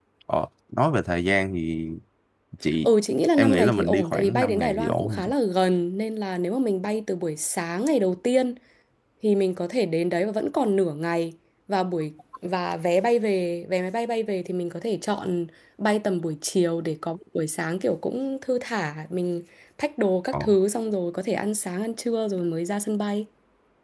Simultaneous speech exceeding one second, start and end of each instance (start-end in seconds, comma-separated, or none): 3.4-5.3